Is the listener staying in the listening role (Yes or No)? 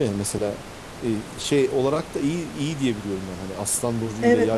No